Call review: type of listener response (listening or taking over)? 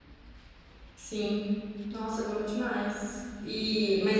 listening